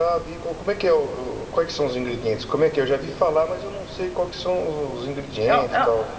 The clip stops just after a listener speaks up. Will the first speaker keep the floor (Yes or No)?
No